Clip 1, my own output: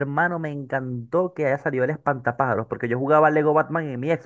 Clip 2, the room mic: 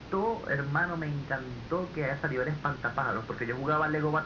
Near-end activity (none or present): none